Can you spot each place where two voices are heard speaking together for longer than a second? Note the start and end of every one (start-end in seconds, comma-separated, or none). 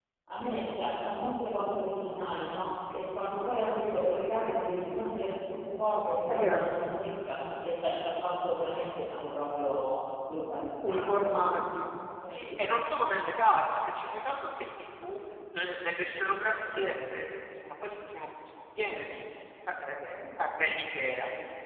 none